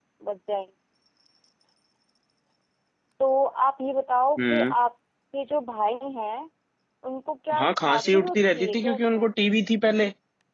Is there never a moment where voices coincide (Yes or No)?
No